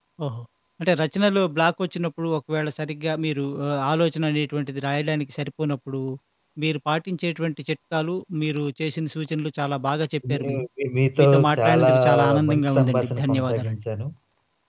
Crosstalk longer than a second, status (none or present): present